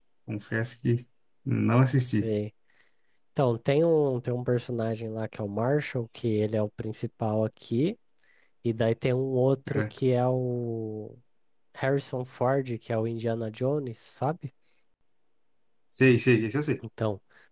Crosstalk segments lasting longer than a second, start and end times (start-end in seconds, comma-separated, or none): none